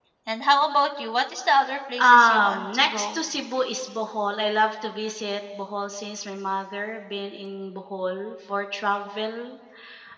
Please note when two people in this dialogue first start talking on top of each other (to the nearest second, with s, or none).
2 s